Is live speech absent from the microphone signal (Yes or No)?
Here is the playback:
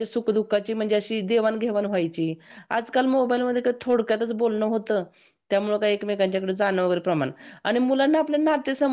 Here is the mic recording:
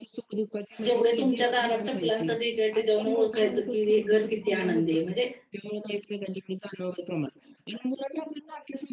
No